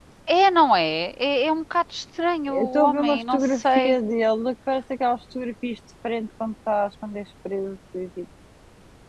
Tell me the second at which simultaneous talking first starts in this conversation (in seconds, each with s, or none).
2.5 s